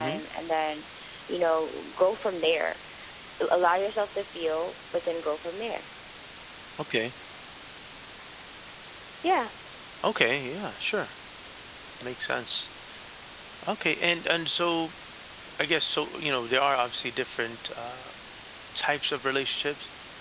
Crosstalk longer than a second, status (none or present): none